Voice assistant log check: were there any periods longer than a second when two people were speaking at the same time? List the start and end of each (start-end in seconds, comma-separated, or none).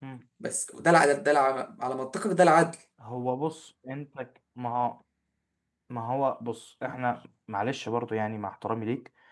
none